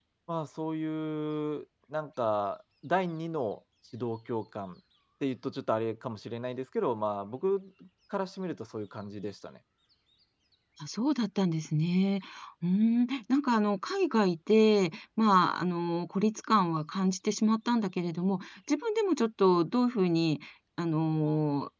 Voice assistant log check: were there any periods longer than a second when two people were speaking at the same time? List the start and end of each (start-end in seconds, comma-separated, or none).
none